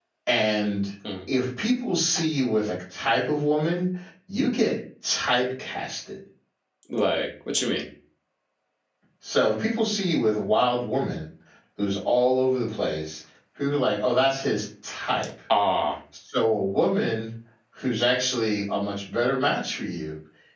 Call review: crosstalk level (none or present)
none